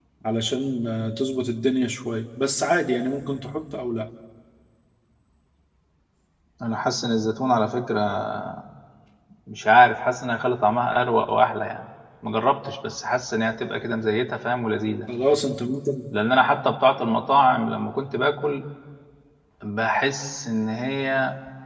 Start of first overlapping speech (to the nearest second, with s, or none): none